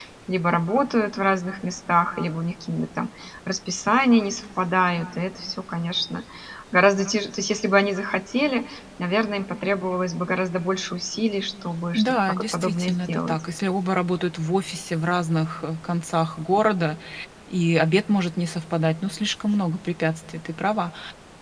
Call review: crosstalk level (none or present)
present